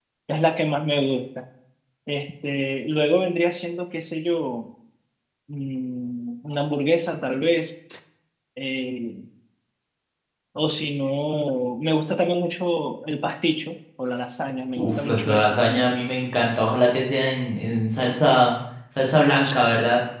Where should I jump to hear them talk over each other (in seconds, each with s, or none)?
14.8 s